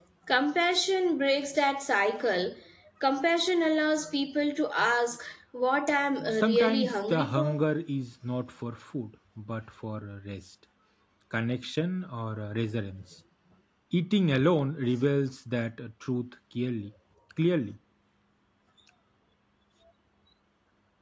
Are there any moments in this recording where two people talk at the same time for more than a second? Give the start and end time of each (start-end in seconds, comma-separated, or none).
6.3-7.6